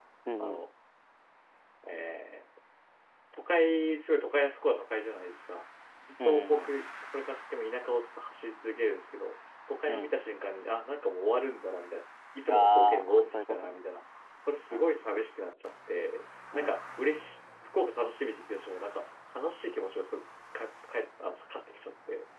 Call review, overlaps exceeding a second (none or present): present